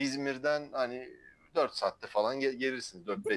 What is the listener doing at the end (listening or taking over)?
listening